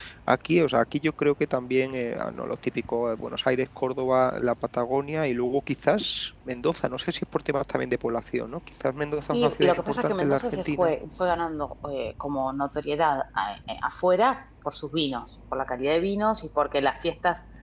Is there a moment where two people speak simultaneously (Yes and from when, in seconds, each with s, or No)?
Yes, from 9.3 s